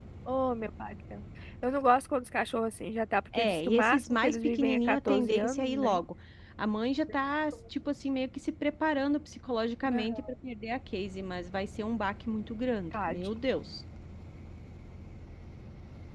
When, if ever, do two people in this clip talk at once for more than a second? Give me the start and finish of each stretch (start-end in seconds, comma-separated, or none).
3.4-6.0